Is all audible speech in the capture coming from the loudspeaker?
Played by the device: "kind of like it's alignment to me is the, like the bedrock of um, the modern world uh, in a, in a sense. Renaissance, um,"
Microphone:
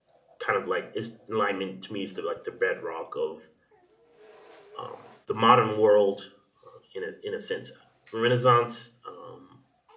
Yes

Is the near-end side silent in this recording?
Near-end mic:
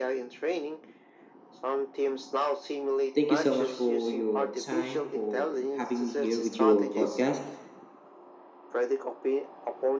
No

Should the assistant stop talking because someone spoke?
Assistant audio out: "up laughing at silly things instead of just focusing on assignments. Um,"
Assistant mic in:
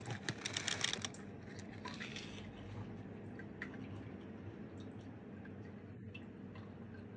No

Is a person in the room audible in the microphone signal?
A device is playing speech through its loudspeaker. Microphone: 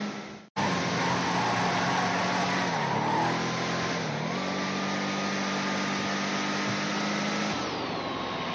No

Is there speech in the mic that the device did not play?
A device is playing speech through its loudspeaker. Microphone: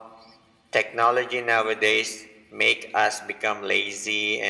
No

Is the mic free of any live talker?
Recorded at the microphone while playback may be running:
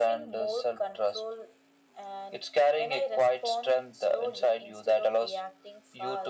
Yes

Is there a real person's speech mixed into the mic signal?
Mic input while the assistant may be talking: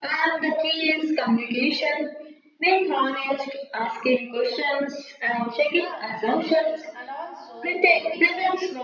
Yes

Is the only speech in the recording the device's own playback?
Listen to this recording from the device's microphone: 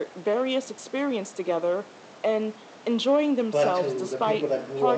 No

